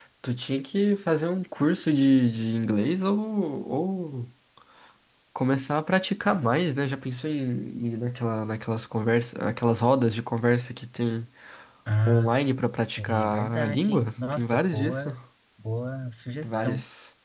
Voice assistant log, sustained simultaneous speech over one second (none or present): present